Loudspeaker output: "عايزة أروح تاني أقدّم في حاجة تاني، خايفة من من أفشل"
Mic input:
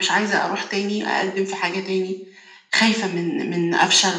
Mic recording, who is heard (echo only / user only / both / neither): echo only